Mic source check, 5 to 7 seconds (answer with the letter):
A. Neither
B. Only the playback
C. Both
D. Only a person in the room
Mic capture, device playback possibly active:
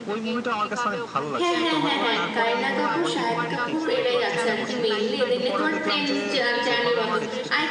C